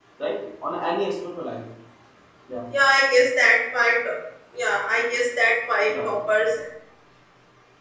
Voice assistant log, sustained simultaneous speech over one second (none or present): none